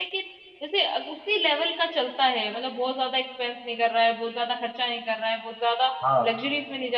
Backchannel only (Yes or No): Yes